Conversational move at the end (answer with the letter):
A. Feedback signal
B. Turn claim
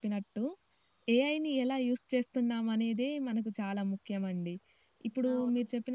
A